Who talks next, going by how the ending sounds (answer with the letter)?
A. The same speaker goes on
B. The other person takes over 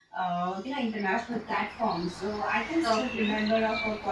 A